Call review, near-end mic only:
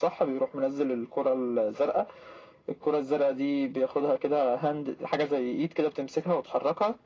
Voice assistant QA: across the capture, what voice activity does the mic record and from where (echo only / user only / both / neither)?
echo only